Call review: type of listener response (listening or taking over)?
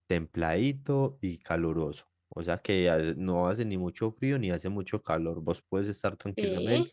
listening